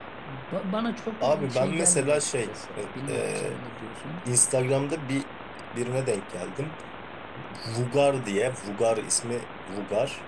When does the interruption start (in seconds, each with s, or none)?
1.2 s